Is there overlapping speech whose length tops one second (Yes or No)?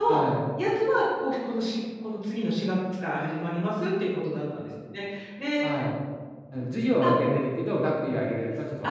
No